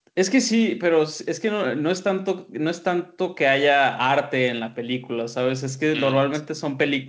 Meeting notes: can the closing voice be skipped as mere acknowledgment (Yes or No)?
Yes